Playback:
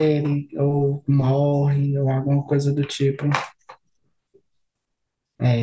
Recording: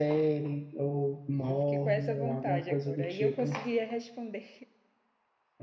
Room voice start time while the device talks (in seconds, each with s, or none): 1.5 s